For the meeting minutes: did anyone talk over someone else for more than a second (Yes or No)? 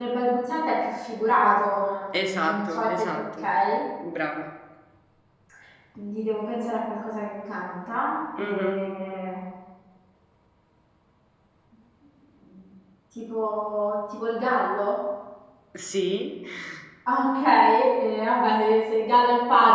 Yes